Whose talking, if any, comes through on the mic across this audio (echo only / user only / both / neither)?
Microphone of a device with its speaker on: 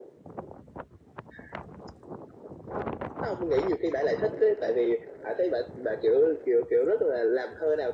echo only